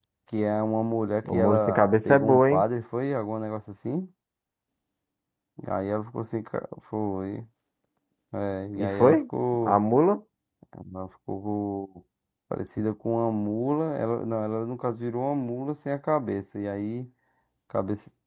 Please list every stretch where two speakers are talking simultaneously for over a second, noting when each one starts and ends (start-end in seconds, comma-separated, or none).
1.2-2.6